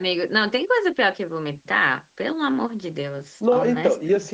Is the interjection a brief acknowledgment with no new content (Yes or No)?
No